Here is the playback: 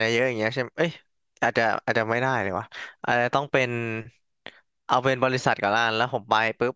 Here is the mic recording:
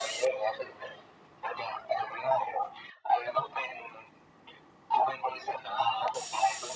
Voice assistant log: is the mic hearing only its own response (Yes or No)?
Yes